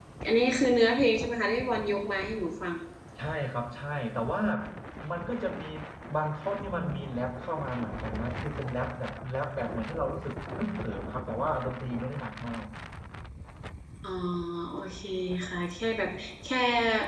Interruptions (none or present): none